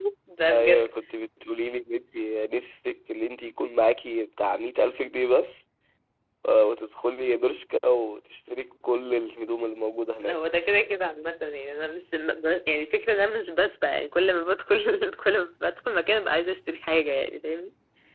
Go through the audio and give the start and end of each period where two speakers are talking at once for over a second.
none

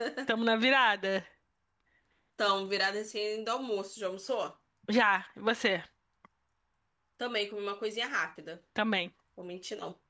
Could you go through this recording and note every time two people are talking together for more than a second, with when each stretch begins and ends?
none

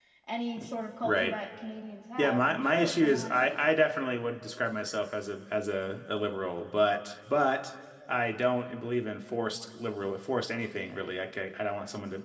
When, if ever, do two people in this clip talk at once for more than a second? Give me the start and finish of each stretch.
2.2-3.6

